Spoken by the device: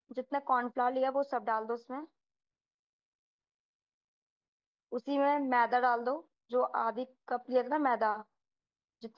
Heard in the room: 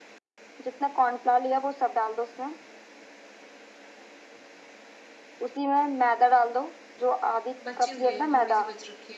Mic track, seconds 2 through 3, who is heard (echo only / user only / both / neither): echo only